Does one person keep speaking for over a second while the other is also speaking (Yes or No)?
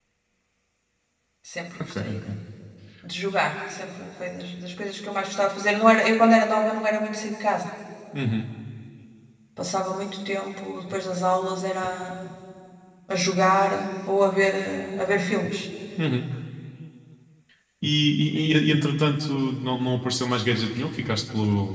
No